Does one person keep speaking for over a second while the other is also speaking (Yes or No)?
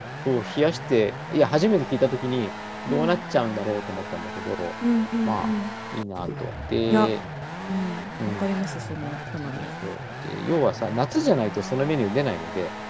No